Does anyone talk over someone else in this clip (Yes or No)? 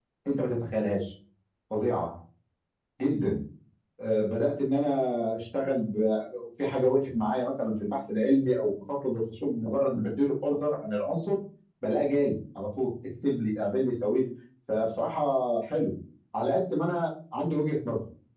No